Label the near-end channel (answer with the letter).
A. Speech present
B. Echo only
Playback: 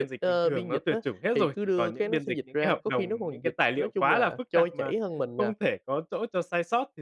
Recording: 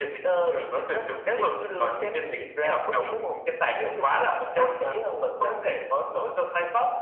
B